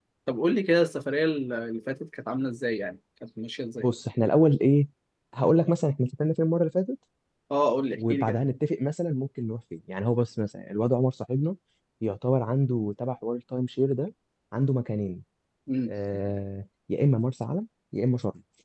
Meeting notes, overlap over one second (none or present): none